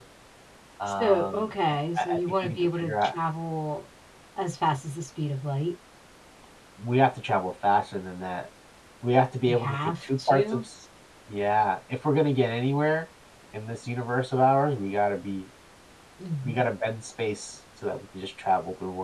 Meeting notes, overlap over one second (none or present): present